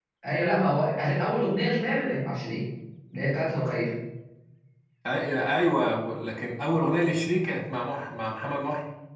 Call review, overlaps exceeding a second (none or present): none